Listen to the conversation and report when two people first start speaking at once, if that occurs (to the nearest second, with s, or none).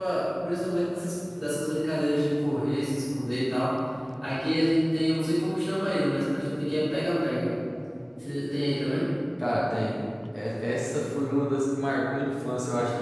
none